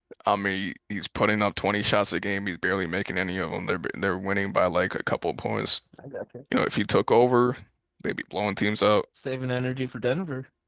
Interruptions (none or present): none